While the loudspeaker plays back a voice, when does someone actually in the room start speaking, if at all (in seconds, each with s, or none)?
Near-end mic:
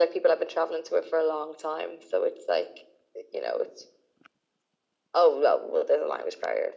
none